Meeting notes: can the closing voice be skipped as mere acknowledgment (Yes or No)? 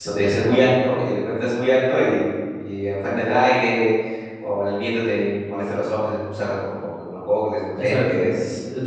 No